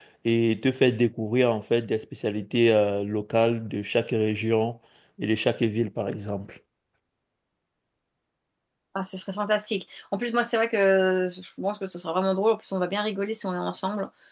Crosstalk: none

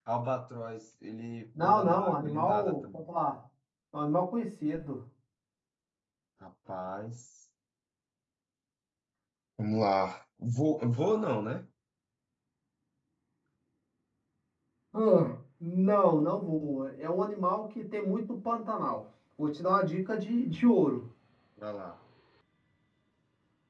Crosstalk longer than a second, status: present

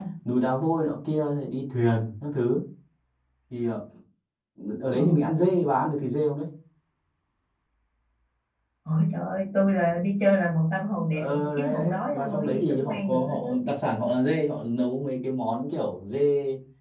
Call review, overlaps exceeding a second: present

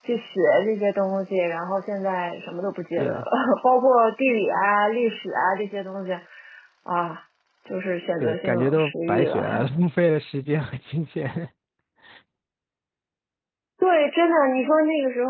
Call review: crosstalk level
present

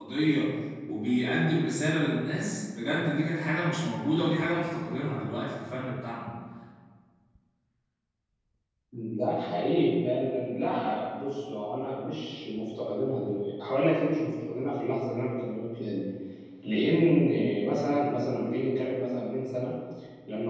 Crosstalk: none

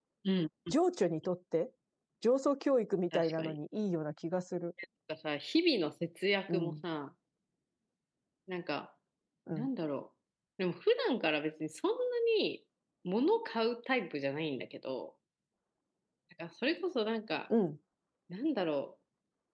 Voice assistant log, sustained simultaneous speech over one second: none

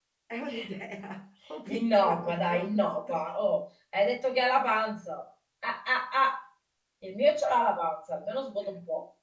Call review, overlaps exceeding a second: present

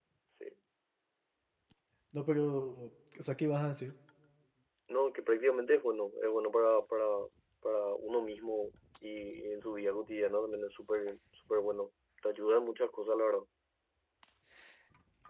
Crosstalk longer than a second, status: none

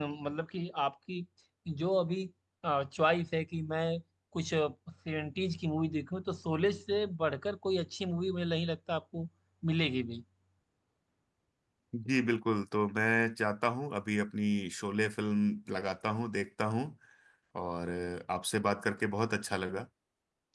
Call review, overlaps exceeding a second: none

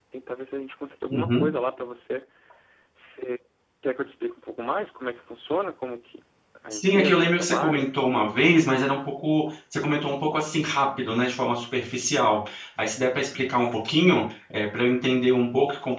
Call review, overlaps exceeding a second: present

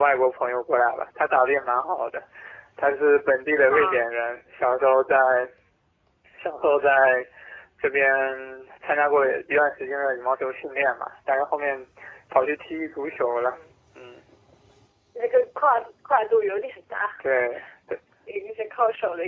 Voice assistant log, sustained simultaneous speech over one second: none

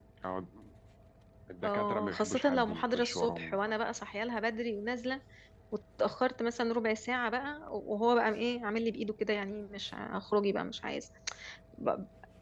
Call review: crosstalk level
present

